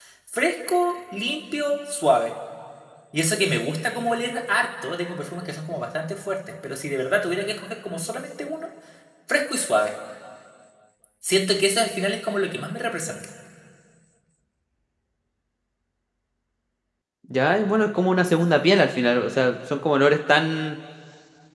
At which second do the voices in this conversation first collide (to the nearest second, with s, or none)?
none